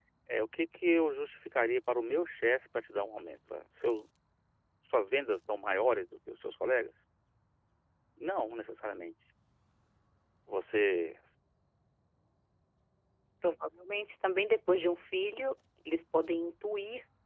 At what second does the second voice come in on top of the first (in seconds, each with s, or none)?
none